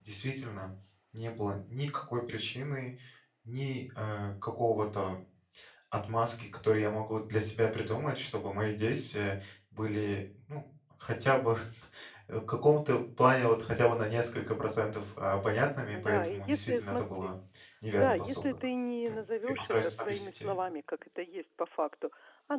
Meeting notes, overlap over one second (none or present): present